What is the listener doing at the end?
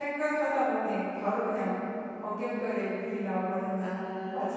taking over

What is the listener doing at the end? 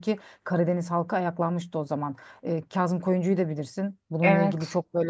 listening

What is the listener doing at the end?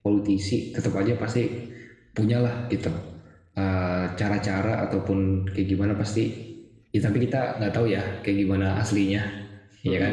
taking over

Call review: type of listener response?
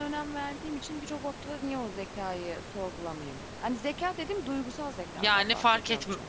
taking over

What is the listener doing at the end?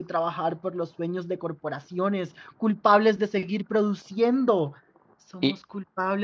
listening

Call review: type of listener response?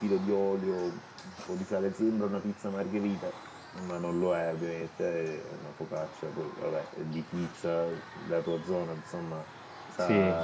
listening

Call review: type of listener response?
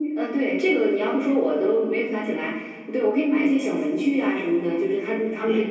listening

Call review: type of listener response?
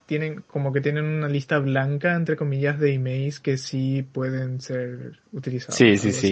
taking over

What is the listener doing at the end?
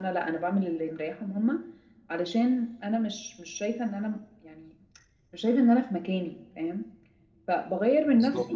listening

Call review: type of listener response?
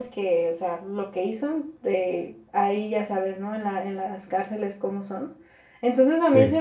listening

